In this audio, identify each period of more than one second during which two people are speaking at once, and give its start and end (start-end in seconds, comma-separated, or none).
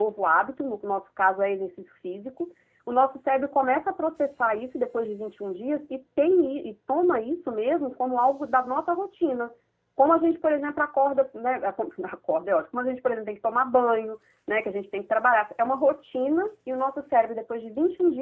none